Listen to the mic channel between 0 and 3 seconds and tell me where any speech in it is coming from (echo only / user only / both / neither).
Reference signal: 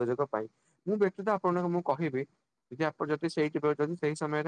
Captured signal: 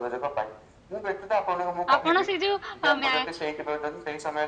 both